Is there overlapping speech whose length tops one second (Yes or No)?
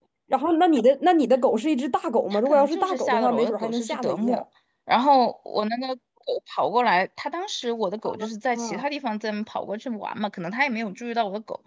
Yes